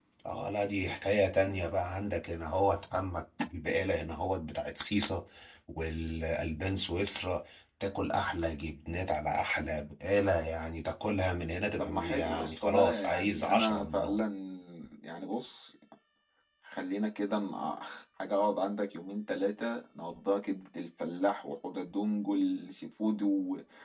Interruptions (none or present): present